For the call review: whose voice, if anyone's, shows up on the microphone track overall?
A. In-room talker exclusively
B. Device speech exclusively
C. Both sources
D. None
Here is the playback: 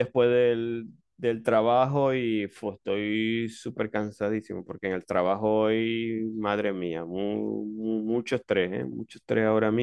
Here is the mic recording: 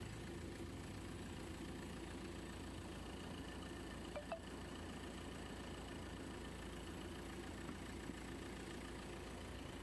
D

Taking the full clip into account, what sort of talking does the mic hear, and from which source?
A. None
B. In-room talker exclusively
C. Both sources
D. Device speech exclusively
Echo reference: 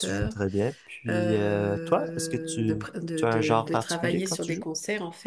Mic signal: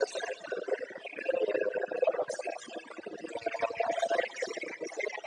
D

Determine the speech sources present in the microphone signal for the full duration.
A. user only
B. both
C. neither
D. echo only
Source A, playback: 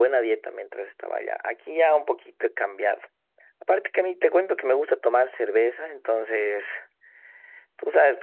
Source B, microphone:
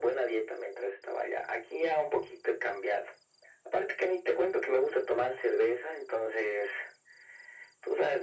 D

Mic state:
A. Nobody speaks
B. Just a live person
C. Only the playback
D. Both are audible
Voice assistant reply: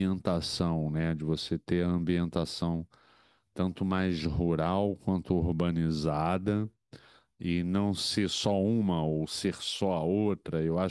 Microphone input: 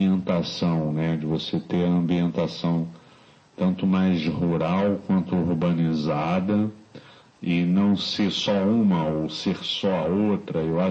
C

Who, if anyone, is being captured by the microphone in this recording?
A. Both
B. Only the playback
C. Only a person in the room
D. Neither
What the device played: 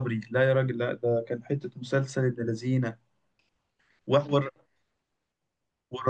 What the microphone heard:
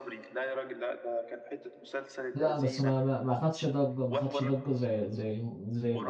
A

